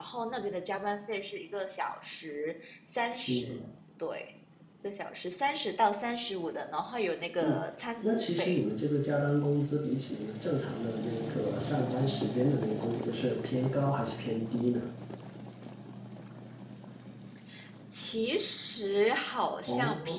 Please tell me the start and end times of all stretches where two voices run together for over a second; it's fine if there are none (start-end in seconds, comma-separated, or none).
none